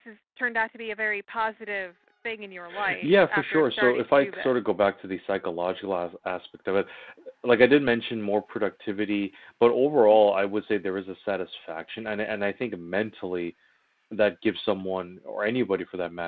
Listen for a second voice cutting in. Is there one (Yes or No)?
Yes